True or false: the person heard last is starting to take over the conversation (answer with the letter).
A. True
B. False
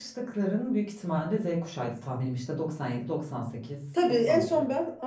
A